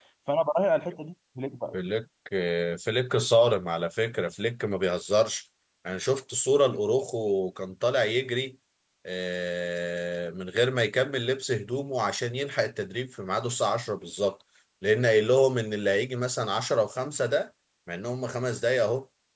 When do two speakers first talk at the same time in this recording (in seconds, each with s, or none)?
none